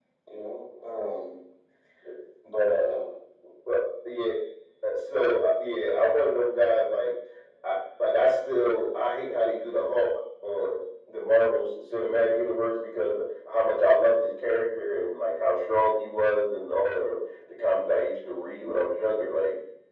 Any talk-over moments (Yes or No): No